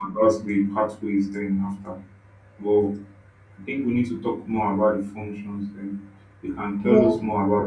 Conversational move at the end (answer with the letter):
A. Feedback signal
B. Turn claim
A